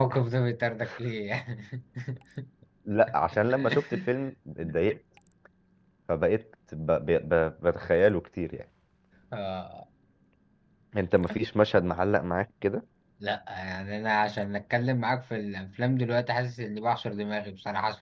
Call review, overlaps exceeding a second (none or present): none